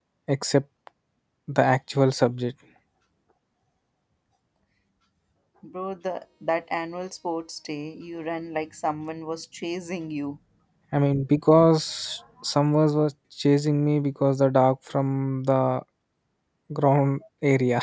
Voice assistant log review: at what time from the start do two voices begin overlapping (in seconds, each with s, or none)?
none